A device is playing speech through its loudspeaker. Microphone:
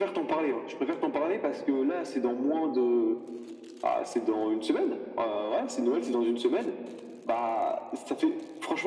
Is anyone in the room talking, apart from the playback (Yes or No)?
No